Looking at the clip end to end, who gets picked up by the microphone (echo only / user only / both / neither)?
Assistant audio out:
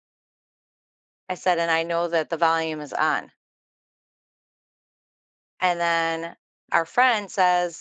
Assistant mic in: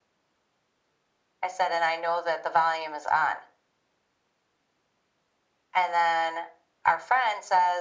echo only